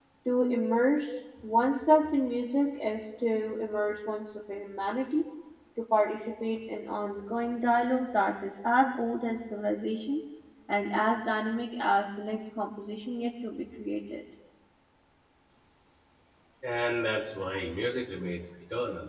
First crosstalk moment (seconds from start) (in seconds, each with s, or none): none